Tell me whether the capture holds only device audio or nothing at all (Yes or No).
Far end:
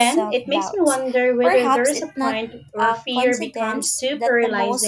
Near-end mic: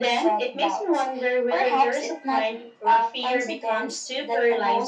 Yes